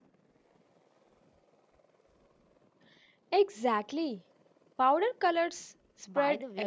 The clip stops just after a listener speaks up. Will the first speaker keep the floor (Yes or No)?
No